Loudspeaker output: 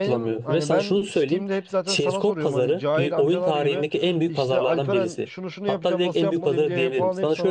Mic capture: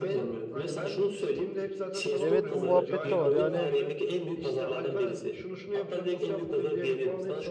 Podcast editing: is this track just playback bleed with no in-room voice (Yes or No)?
No